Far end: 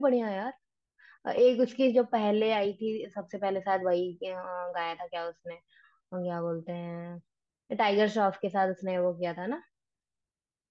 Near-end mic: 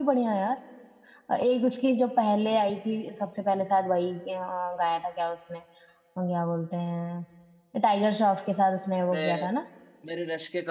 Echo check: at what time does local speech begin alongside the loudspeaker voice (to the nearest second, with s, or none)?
9 s